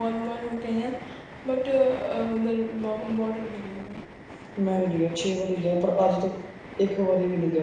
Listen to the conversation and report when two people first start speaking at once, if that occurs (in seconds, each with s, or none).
none